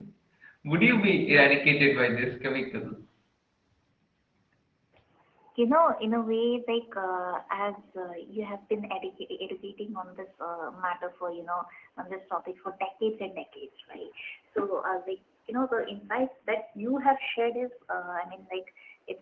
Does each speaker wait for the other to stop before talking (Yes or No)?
Yes